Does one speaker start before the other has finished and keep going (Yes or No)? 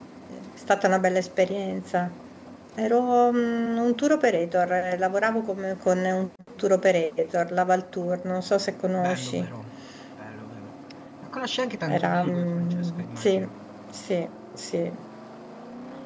Yes